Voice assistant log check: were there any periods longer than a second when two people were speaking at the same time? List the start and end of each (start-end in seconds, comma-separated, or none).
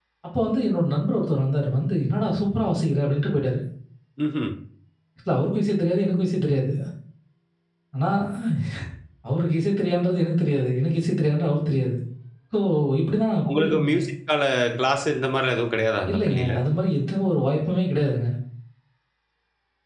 none